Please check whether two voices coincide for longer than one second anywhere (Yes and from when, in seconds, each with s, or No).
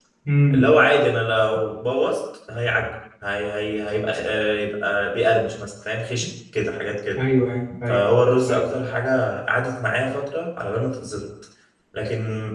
No